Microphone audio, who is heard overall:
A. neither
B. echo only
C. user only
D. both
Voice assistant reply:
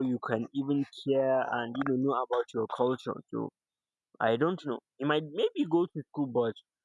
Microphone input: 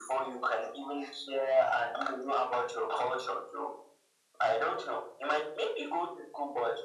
B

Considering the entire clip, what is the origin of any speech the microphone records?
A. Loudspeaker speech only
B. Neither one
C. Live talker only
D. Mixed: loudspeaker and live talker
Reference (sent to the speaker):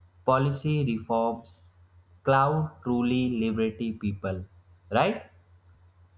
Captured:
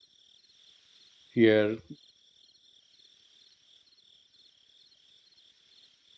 C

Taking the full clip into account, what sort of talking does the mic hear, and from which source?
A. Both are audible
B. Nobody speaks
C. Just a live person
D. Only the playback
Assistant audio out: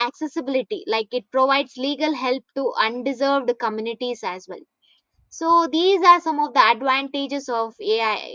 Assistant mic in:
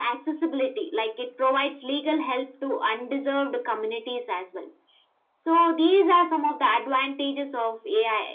D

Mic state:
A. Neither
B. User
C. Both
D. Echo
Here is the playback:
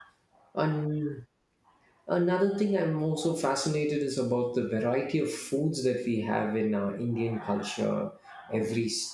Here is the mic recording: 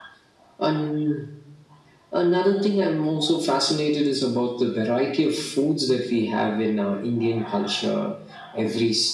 D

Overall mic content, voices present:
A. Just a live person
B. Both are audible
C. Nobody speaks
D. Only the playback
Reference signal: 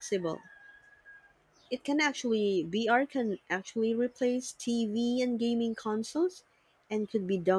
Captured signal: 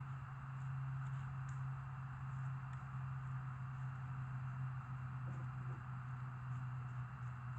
C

